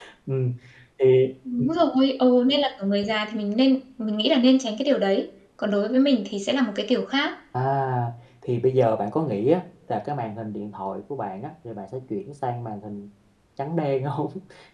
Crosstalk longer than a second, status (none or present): none